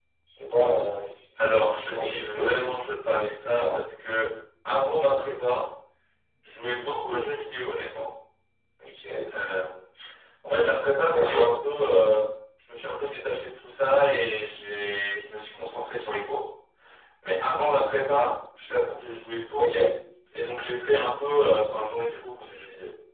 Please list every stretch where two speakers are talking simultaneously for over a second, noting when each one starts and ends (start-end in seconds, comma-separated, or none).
1.4-2.7